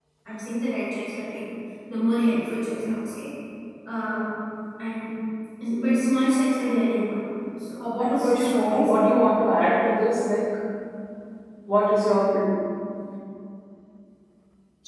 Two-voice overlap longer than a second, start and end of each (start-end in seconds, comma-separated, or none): 7.8-9.1